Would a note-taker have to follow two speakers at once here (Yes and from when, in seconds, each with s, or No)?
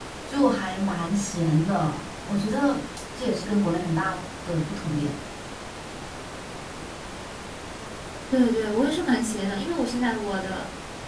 No